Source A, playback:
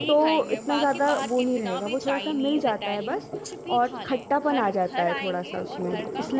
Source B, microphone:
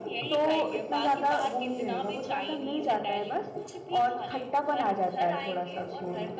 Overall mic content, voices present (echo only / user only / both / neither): echo only